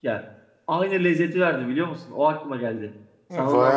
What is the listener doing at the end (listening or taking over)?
taking over